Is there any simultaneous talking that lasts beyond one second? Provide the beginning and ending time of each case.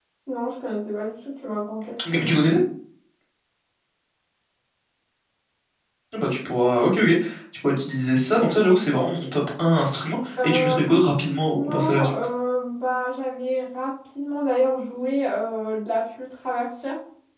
10.4-12.1

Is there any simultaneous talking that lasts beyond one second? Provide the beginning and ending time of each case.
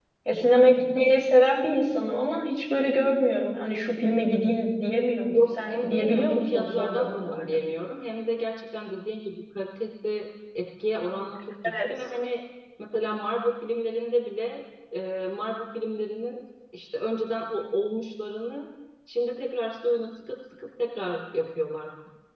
5.3-7.6

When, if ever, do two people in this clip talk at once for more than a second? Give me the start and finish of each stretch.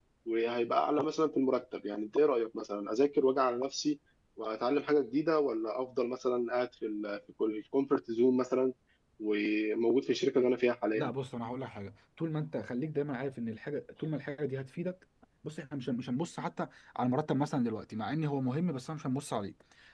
none

